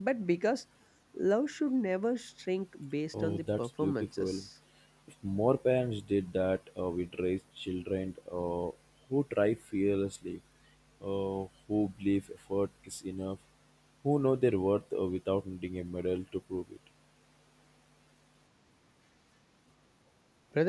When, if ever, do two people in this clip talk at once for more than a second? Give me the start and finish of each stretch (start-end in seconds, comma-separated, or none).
3.2-4.4